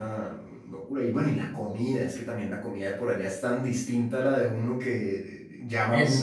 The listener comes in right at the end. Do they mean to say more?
Yes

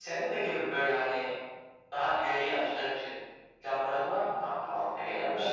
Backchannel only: No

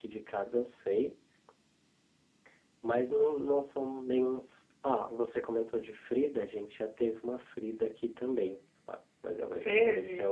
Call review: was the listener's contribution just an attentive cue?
Yes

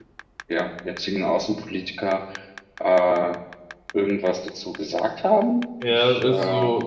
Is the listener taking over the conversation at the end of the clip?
Yes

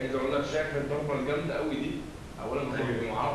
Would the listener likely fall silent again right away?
Yes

